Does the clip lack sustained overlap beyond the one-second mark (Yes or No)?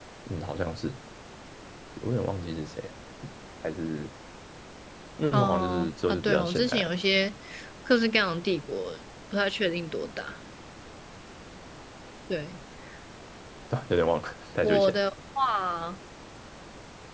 No